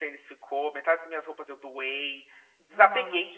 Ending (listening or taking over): listening